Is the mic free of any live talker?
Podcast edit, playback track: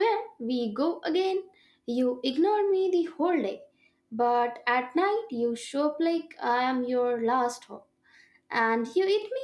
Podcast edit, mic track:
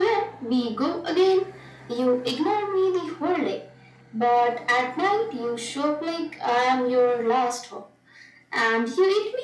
Yes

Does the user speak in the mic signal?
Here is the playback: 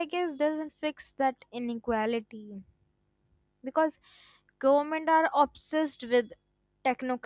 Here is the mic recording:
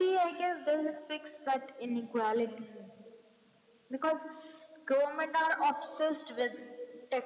No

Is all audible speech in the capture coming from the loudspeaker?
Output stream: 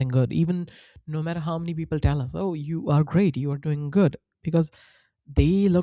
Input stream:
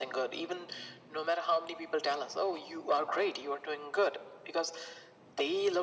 Yes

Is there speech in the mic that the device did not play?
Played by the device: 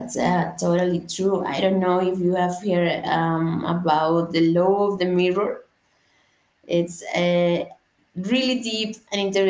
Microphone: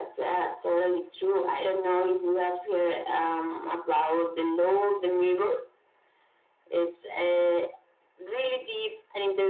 No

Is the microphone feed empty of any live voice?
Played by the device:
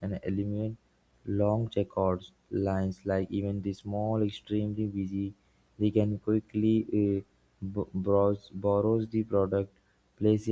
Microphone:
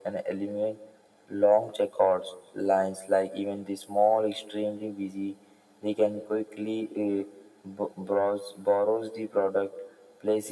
Yes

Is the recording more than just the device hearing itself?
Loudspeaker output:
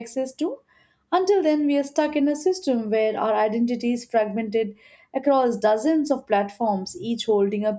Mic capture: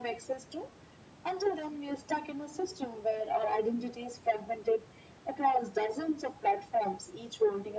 No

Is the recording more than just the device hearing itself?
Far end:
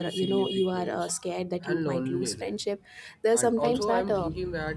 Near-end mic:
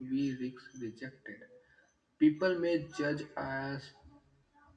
Yes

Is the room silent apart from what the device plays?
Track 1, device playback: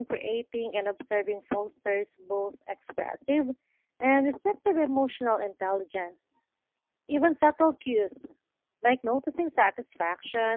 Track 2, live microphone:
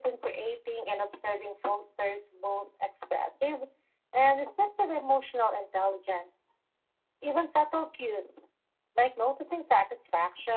Yes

